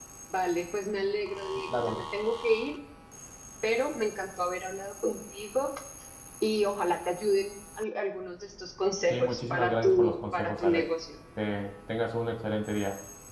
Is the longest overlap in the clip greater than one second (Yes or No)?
Yes